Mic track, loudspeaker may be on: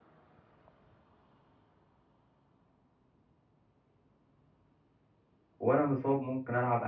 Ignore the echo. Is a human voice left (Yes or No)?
Yes